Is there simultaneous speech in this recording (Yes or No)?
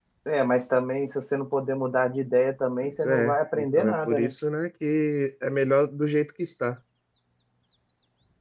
Yes